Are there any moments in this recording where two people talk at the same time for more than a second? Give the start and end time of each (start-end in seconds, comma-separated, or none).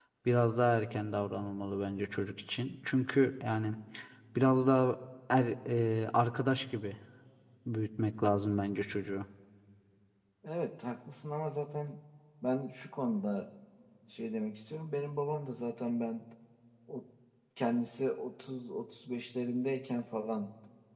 none